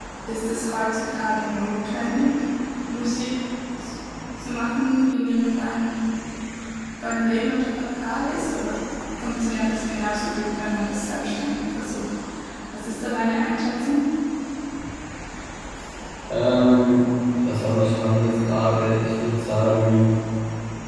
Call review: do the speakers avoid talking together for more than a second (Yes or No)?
Yes